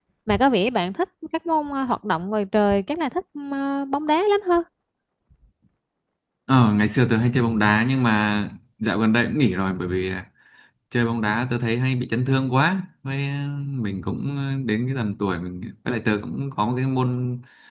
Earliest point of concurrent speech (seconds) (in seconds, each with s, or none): none